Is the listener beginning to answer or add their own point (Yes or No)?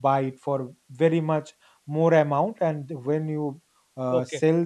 No